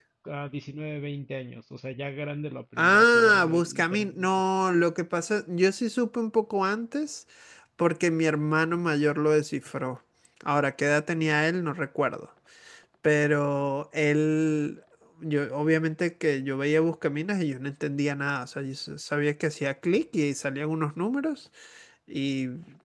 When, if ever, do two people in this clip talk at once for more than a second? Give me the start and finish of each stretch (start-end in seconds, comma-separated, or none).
2.8-4.4